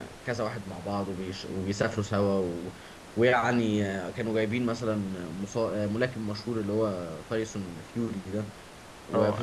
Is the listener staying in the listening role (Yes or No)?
Yes